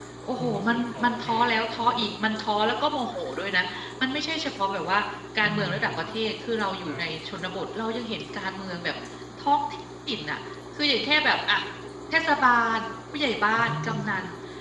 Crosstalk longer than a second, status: present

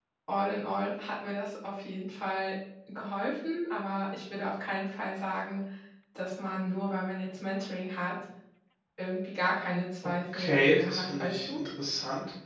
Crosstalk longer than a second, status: present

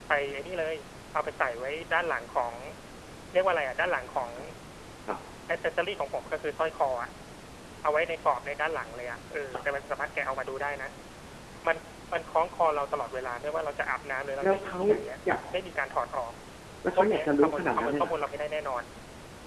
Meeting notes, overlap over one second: present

